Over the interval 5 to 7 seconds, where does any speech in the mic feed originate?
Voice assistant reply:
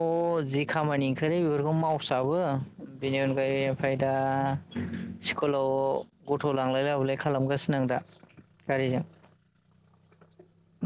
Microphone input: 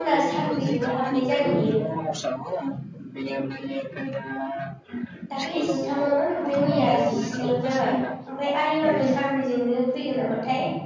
both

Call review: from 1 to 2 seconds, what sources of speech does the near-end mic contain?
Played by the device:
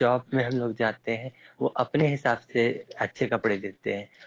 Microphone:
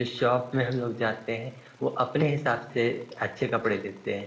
echo only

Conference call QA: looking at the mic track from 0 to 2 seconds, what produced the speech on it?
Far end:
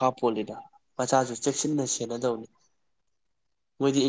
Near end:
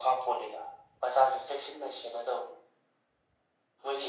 echo only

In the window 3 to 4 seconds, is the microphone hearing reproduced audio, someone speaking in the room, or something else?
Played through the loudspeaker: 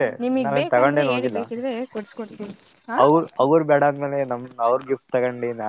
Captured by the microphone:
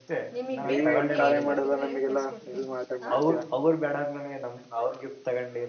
both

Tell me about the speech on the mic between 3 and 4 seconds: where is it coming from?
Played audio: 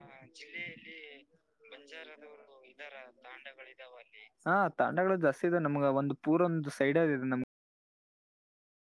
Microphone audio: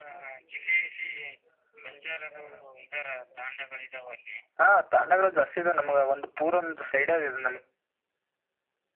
echo only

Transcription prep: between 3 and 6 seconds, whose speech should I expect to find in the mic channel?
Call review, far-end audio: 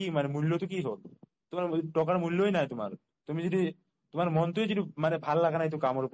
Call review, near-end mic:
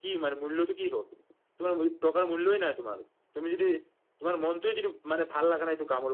echo only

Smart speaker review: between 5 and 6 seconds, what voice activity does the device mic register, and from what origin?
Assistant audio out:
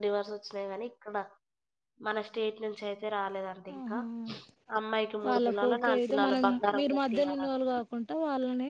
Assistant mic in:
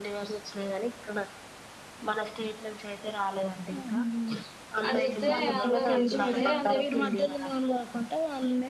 both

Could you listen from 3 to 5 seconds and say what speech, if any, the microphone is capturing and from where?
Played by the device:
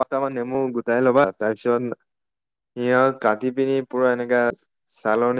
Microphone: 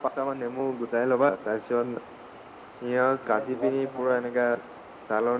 both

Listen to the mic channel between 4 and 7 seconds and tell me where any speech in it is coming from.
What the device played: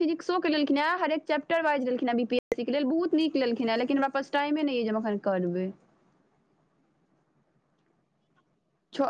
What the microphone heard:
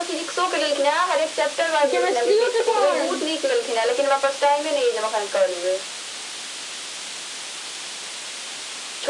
echo only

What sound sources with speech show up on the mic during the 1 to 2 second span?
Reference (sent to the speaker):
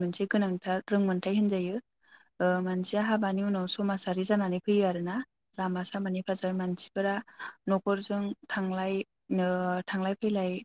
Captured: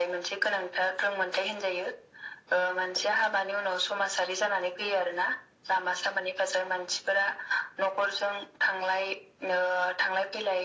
echo only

